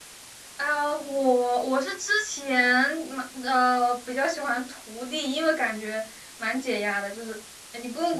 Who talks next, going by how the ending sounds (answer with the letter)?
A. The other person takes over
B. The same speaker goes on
B